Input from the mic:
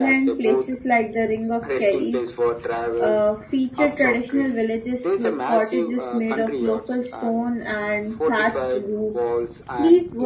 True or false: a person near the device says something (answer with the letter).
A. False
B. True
B